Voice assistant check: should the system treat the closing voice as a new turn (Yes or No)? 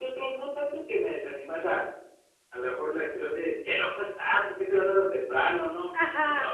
No